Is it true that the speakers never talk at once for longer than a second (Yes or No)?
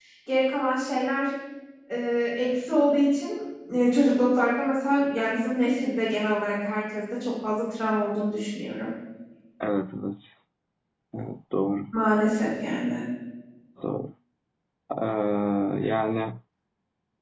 Yes